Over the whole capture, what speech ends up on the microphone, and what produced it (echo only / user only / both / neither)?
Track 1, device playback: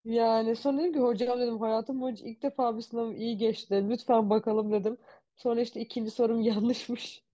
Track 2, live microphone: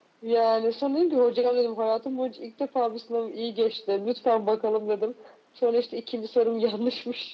echo only